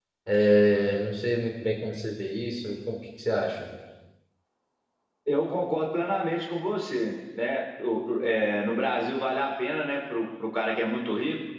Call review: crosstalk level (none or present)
none